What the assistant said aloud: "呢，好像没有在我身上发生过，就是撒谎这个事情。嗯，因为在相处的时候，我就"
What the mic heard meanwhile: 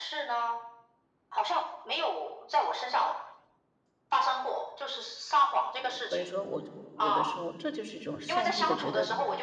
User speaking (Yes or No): Yes